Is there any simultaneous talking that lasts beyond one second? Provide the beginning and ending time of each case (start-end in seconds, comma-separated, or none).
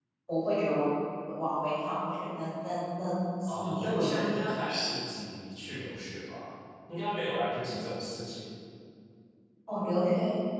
3.5-4.9